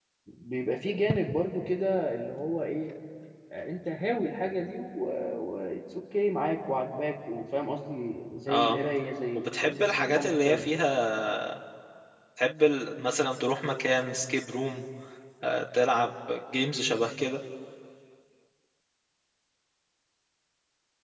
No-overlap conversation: No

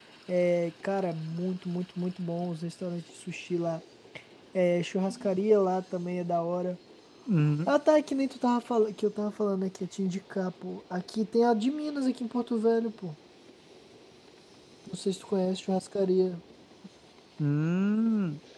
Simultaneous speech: No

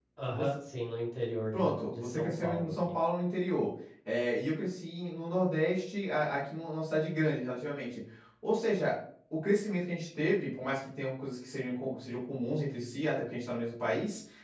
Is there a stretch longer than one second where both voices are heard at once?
Yes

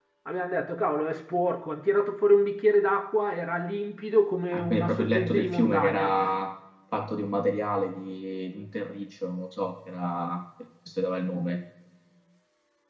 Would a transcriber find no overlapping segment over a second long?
No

